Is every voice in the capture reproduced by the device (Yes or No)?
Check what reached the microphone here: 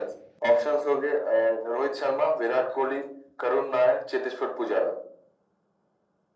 Yes